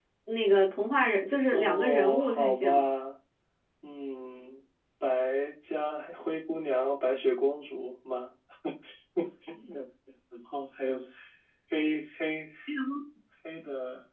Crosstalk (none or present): present